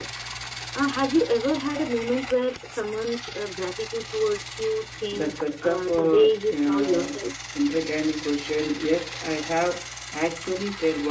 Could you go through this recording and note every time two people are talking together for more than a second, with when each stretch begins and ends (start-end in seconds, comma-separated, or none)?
5.1-7.2